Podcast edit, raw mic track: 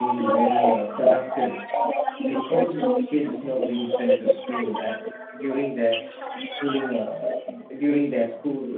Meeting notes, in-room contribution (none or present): present